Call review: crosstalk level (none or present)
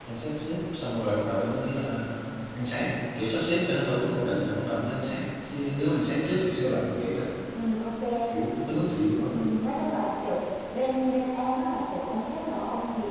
none